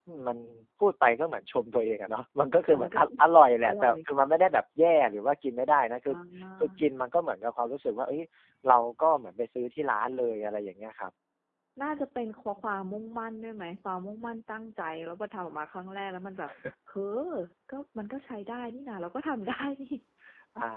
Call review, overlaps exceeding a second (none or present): none